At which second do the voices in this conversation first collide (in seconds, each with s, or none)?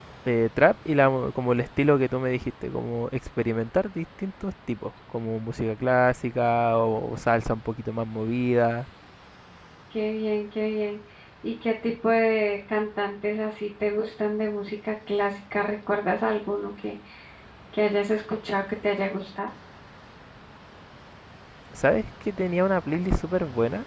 none